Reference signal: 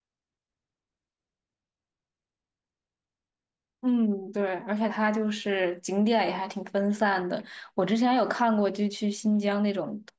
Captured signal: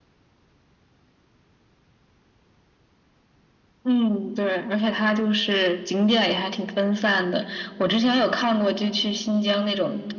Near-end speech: none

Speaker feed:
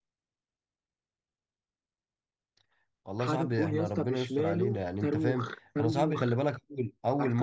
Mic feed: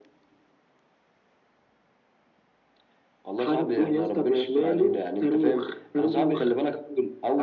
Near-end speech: none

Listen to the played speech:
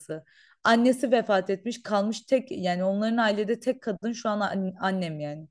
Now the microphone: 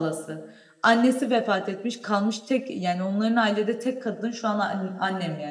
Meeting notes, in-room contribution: none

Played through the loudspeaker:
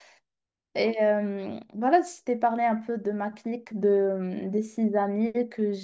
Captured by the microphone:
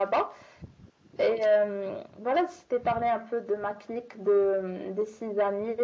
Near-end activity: none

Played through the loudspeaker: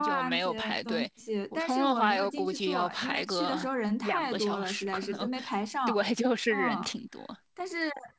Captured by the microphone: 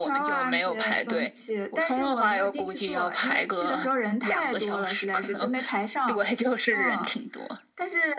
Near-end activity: none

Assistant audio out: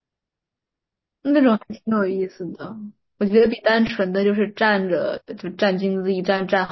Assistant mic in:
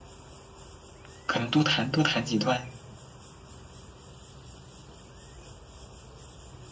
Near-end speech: present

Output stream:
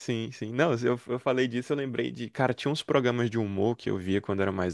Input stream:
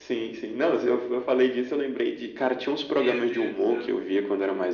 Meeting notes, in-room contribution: present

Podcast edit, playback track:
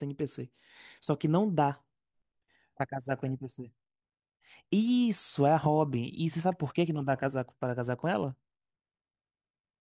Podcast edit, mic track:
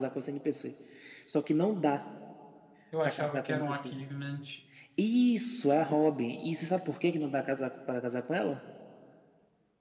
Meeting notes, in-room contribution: present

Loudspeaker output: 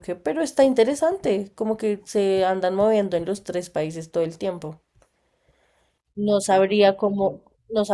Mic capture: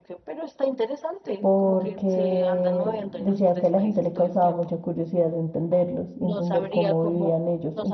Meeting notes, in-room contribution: present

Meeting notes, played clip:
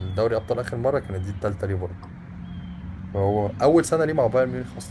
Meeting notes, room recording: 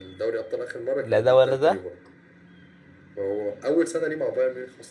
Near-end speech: present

